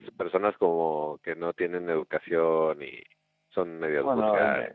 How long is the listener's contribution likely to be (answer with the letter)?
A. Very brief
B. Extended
B